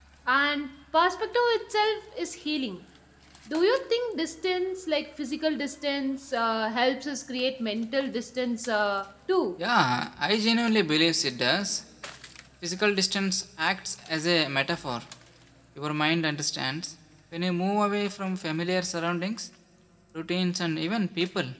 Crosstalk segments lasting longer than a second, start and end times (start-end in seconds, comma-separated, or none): none